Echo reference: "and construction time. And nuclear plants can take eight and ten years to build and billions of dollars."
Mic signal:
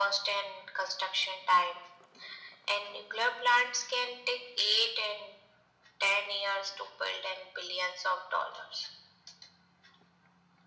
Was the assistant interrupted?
No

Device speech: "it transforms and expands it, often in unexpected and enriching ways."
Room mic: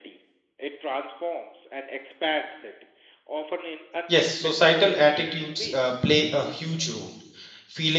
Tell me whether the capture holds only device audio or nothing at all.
No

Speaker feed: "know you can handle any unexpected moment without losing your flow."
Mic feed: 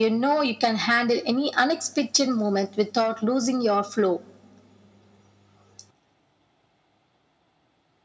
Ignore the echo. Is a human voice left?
No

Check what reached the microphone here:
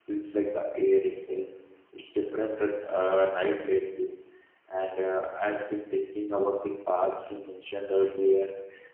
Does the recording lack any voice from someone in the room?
No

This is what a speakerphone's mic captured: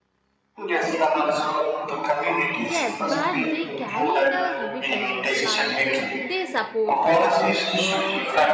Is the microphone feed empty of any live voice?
No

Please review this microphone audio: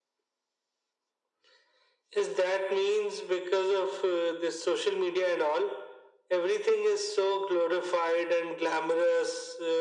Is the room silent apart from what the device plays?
Yes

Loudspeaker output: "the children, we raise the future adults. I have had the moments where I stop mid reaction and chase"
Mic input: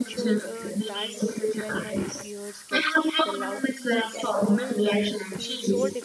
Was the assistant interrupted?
Yes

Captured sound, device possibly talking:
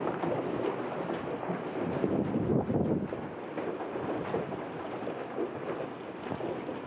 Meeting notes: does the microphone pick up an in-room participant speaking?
No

